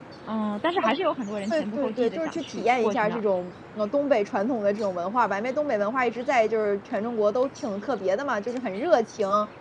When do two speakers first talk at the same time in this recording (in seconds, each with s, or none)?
1.5 s